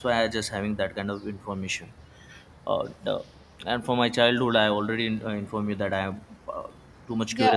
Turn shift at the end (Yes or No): Yes